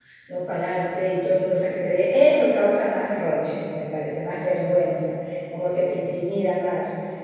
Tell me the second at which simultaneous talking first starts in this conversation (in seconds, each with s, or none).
none